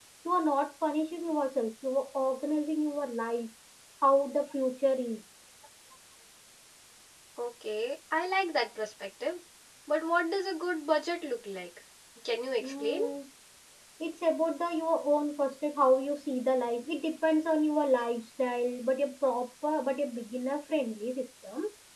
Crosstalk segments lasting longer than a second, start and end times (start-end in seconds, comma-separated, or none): none